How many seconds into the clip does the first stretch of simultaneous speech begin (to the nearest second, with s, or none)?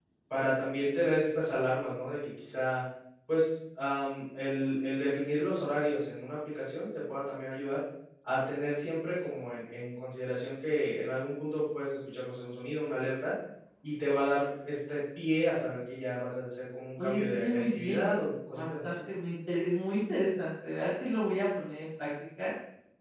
17 s